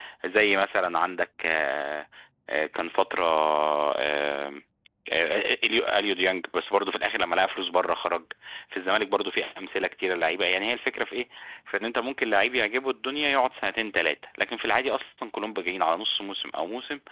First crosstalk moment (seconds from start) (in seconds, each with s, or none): none